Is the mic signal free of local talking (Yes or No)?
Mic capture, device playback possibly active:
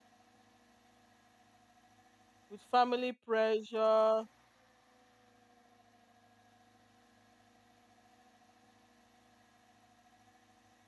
No